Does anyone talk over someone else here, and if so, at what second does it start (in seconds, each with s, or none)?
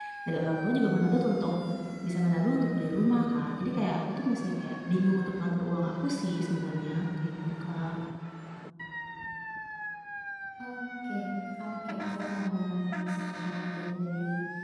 none